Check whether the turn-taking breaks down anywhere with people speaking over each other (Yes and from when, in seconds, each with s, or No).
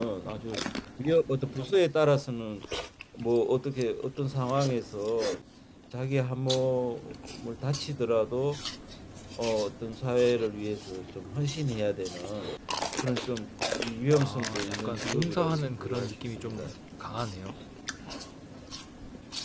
Yes, from 14.2 s